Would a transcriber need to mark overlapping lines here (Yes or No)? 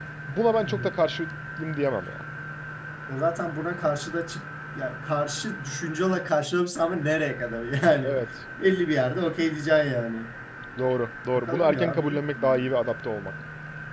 Yes